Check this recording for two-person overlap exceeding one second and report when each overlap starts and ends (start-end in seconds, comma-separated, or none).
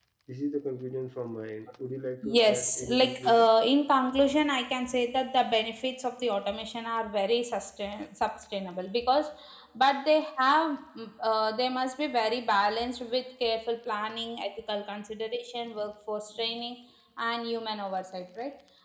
2.2-3.5